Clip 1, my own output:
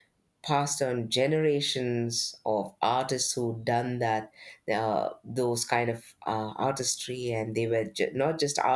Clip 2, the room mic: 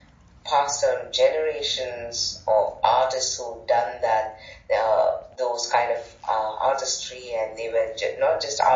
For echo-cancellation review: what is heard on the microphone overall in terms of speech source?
echo only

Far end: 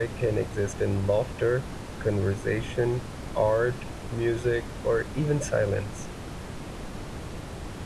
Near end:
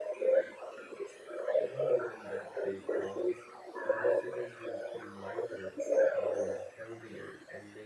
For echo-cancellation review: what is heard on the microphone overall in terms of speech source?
both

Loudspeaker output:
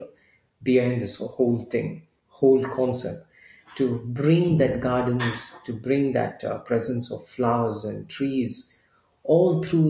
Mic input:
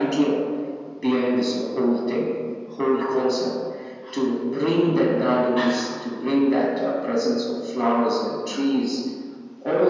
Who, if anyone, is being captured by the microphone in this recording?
echo only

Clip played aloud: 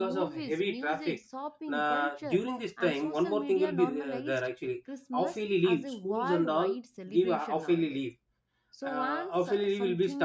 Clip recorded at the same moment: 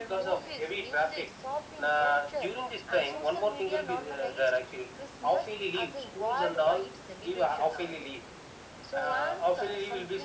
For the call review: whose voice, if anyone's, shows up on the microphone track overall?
echo only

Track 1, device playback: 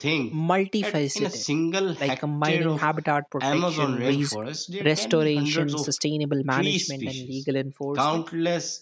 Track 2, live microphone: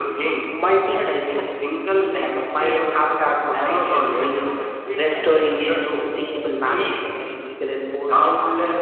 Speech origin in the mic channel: echo only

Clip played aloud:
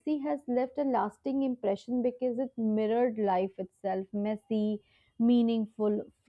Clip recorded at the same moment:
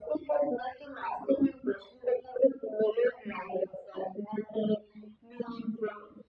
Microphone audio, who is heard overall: echo only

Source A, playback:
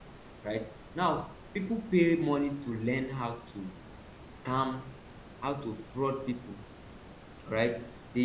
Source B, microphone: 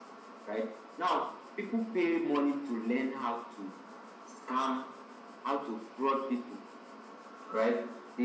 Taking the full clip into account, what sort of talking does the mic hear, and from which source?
echo only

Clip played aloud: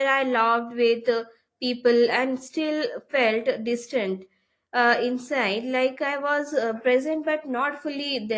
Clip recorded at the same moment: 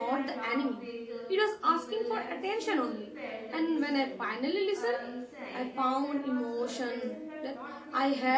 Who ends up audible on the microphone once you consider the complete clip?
both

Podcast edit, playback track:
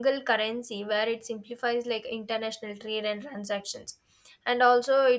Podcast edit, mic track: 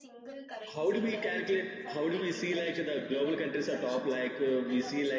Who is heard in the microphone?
both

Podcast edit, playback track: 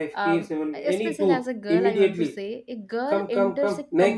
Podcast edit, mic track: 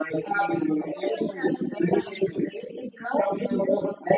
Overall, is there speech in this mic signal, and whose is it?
echo only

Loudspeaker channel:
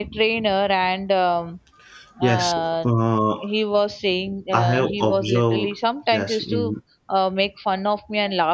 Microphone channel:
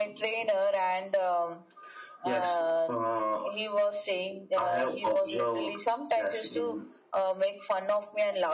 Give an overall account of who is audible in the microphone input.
echo only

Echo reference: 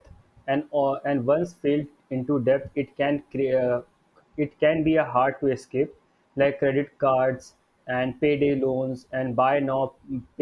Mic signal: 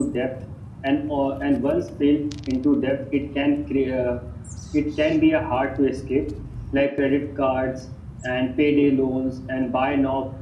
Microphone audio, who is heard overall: echo only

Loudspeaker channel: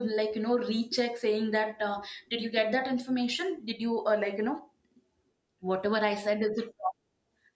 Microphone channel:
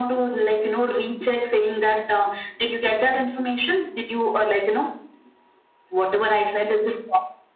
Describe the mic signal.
echo only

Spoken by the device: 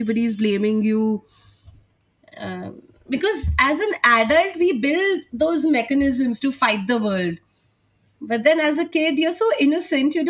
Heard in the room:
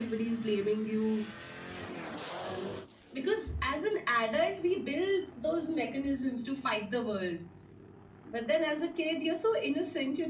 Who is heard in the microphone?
echo only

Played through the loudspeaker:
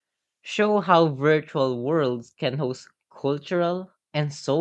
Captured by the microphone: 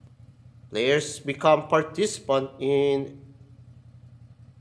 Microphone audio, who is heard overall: user only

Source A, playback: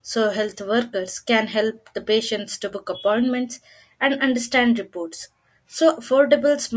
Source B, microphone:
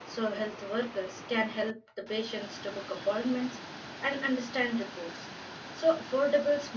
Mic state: echo only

